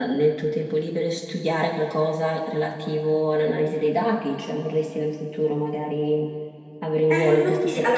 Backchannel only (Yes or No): No